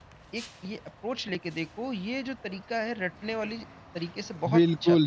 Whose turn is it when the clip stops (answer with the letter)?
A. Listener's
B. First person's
A